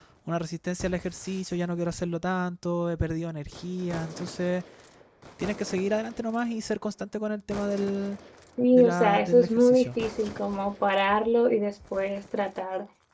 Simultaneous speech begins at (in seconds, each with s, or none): 8.7 s